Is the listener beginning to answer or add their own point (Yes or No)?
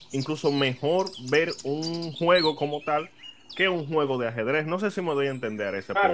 Yes